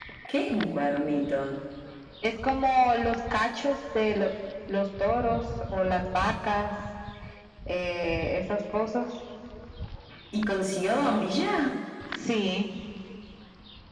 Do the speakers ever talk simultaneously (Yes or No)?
No